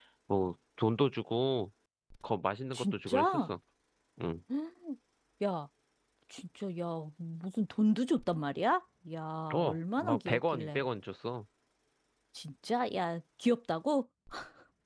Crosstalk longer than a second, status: present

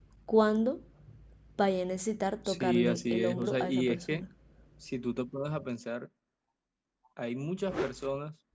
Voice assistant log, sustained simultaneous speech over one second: present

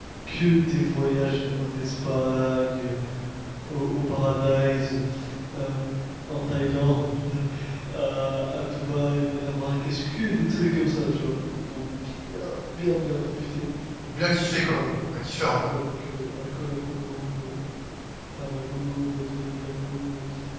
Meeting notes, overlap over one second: none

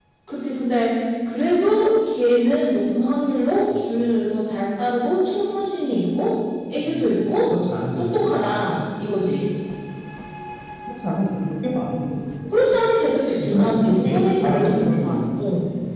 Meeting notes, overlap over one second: present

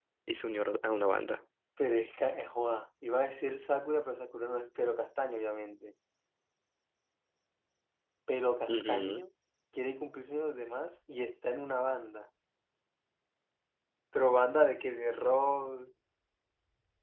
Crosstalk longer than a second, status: none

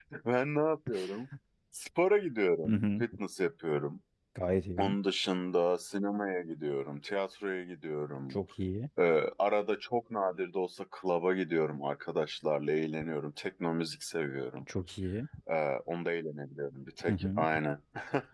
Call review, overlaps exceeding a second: none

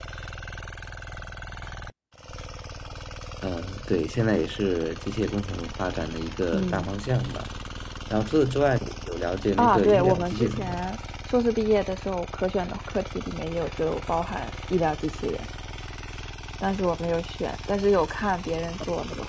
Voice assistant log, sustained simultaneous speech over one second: present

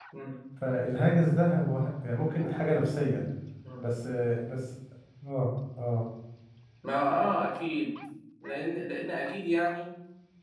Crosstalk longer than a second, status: none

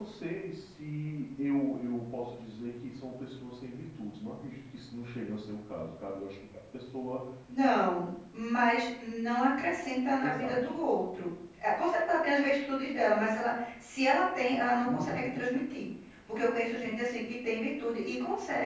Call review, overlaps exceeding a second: none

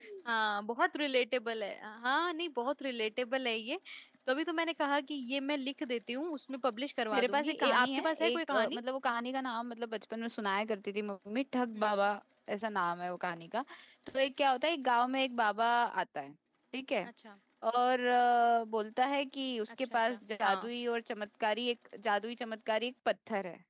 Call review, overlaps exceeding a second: present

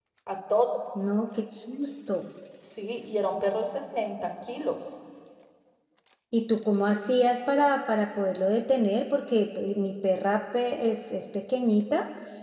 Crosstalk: none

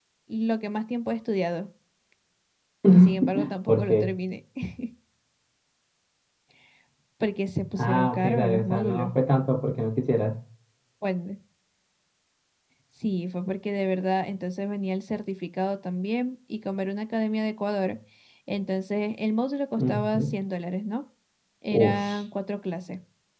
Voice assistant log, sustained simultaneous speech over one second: present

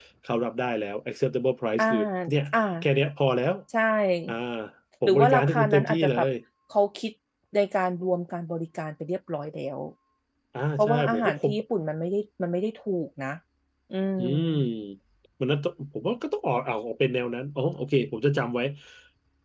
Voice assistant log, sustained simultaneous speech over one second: present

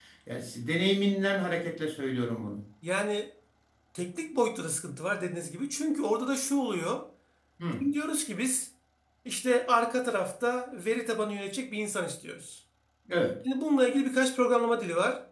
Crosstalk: none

